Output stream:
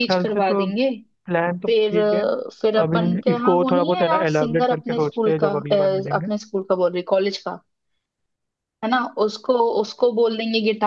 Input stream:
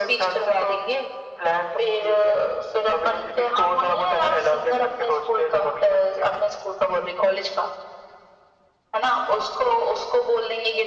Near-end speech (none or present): none